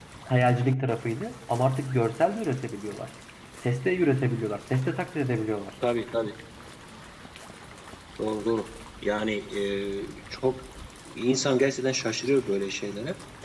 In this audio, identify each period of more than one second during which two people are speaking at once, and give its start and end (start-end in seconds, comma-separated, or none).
none